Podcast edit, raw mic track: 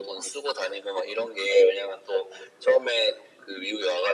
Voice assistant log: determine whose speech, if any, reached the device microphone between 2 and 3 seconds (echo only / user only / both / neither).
echo only